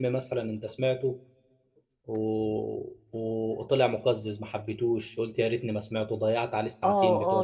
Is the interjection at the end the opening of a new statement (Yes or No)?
Yes